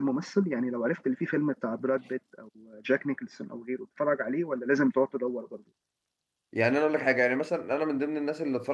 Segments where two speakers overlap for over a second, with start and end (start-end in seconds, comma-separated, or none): none